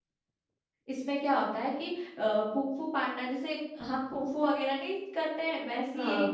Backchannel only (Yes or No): Yes